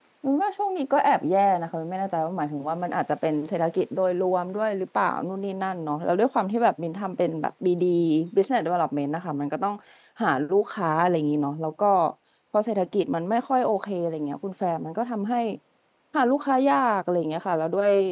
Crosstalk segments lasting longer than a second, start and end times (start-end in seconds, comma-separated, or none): none